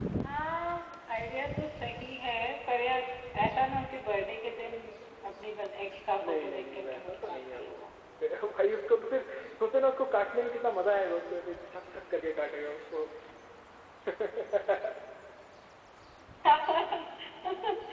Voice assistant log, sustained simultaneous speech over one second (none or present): present